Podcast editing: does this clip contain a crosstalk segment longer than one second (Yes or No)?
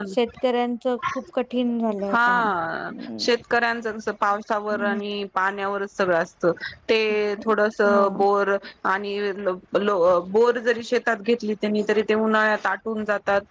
No